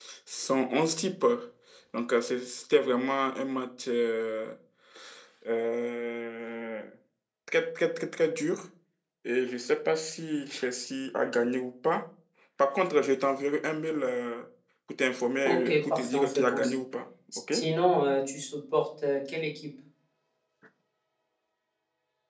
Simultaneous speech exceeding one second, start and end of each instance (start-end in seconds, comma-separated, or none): 15.4-16.8